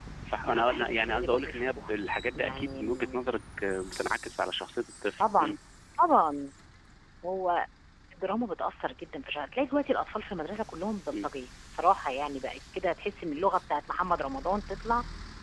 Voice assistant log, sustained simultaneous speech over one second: present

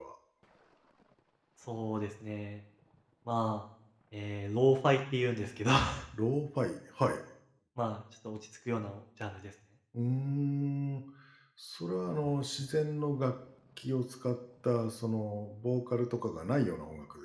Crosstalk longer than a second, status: none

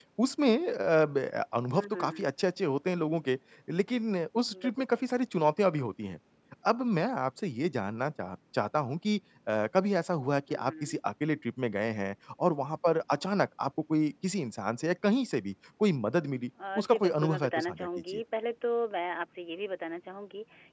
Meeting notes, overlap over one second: present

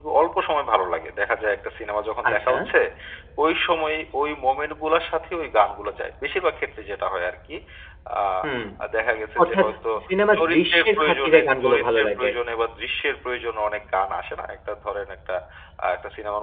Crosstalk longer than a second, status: present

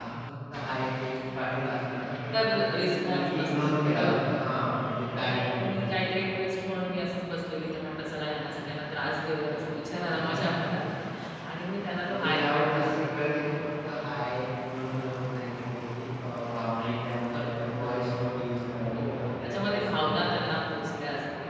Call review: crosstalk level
present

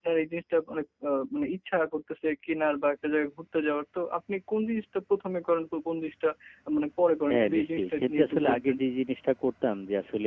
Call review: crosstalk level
present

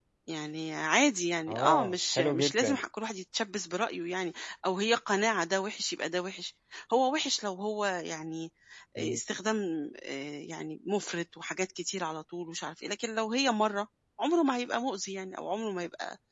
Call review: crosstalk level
present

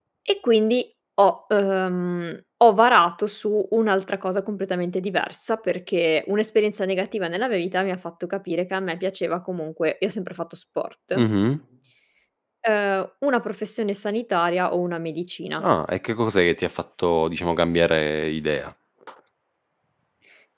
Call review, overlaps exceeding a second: none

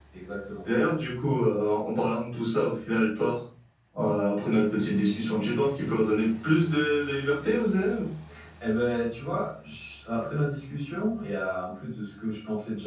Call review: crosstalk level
none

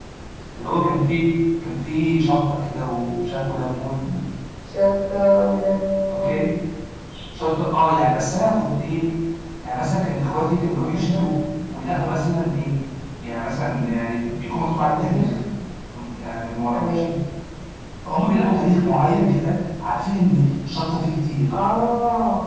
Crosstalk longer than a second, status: none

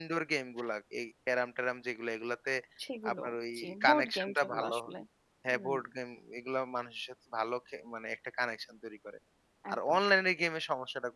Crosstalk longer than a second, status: present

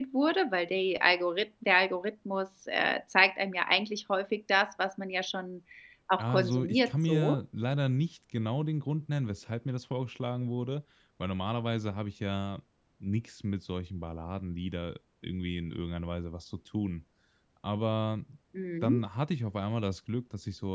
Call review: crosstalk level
present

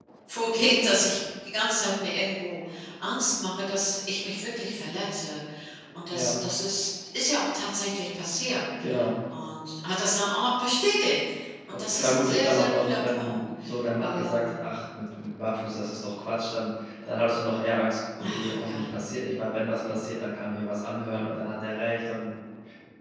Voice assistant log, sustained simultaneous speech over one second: present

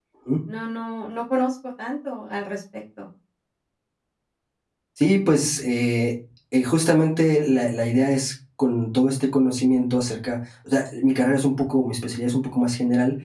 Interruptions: none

